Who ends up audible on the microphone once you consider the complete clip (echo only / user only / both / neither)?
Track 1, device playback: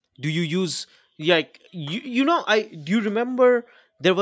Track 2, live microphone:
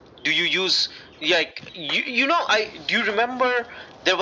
echo only